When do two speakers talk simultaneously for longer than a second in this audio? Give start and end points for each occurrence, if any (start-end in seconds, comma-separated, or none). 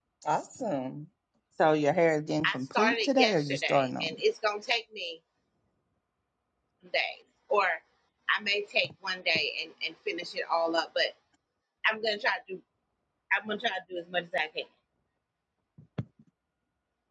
2.5-4.2